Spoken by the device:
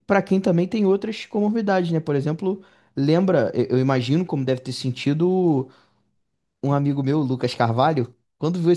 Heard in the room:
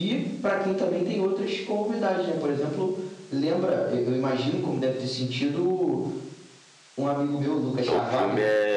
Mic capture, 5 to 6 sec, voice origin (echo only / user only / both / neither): echo only